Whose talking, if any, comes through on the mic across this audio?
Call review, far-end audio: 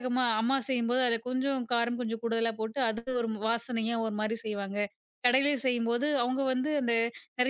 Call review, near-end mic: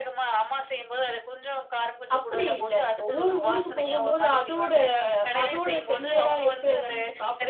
both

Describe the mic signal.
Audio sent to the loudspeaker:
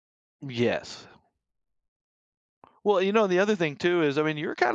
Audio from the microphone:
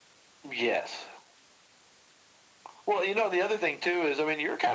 echo only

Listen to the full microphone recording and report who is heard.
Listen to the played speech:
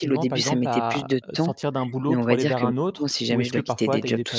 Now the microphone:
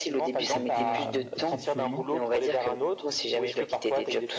both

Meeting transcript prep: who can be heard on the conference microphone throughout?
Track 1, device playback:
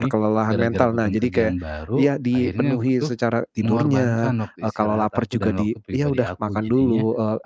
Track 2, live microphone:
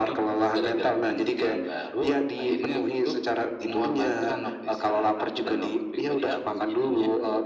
echo only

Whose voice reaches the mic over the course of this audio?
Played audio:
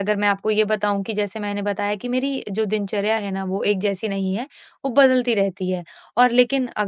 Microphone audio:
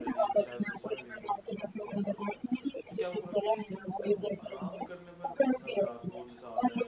both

